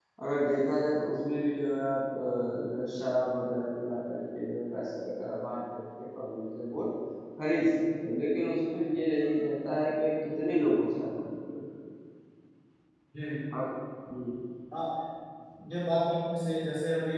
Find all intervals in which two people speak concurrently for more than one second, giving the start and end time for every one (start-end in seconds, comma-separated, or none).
none